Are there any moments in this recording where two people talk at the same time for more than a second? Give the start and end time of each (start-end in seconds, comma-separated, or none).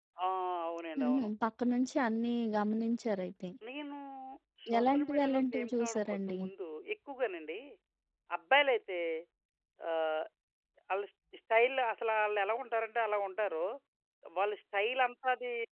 4.8-6.4